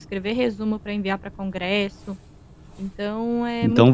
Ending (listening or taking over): taking over